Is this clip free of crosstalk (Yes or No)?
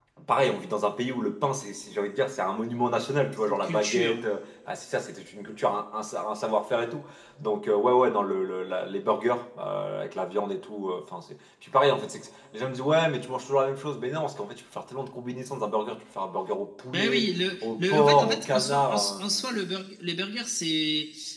No